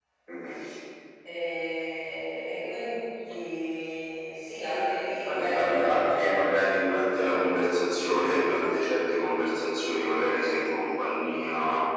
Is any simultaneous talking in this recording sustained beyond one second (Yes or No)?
Yes